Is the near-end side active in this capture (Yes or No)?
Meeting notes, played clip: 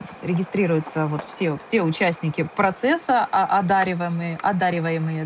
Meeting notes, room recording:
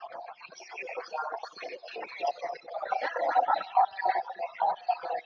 No